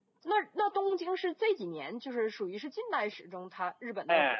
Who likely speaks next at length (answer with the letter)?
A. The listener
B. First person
A